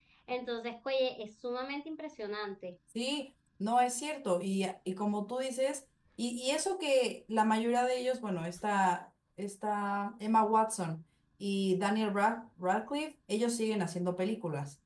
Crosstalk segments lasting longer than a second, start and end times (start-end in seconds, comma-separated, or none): none